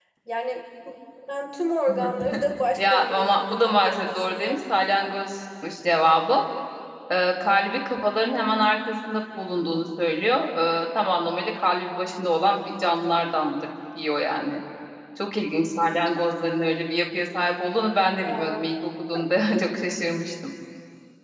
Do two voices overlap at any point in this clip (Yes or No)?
Yes